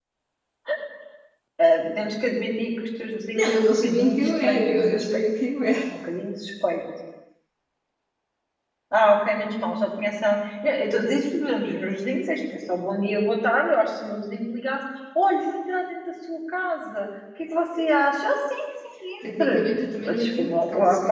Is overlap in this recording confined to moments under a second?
No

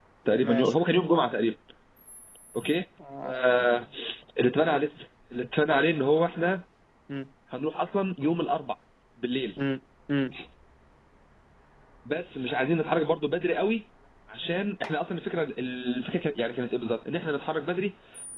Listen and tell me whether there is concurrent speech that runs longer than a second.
No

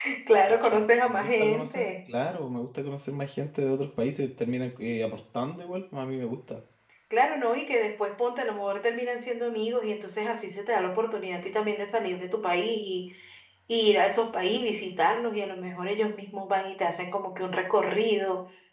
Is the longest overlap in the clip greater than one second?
Yes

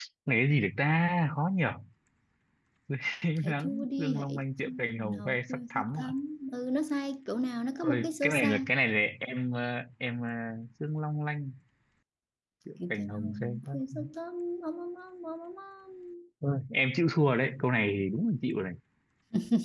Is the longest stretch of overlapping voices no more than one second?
No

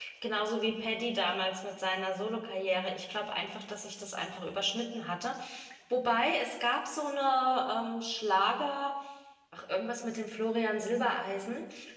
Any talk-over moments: No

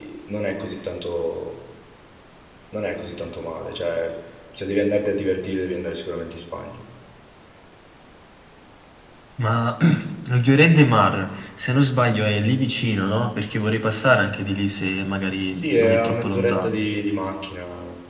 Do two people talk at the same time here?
Yes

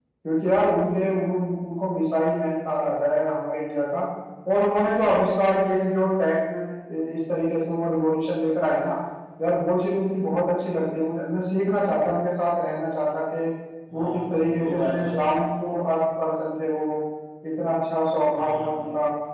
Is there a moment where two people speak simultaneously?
Yes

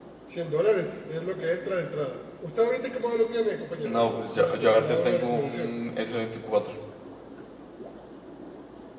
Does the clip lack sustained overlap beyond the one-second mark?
No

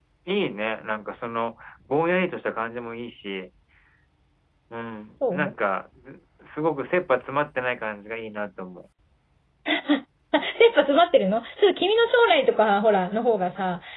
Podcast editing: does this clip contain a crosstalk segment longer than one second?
No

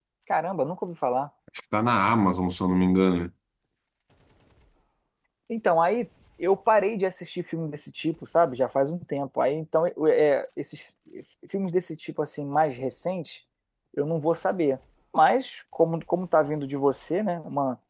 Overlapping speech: No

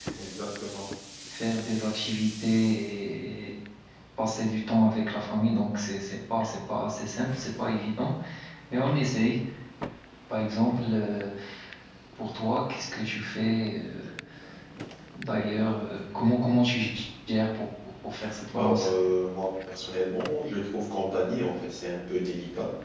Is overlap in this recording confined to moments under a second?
Yes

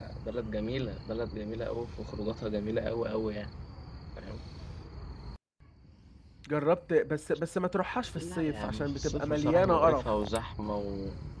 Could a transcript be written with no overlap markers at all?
No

